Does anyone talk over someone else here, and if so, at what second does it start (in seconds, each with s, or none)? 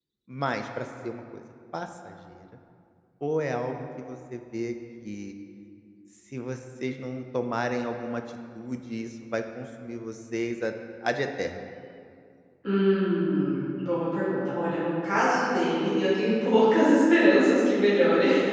none